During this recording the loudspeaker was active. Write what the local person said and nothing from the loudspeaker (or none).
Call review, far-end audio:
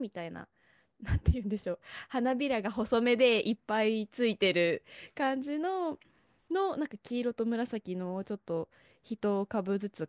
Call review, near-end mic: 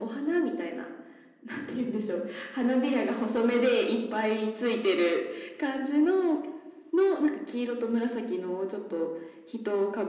none